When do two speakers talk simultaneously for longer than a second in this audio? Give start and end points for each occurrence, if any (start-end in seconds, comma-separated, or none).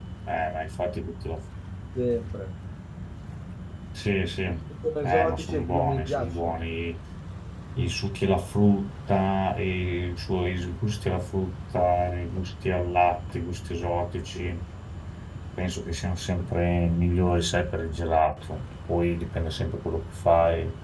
5.0-6.6